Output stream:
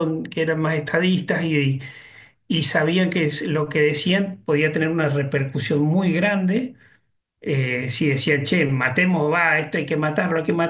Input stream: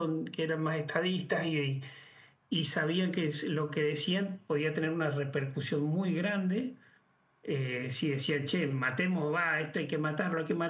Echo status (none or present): present